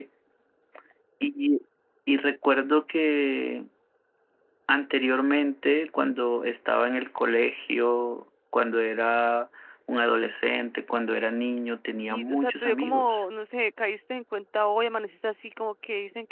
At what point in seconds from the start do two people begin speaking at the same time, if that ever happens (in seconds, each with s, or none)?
12.0 s